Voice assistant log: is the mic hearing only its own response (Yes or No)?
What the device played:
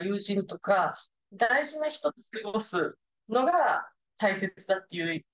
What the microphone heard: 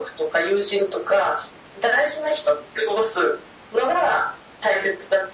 Yes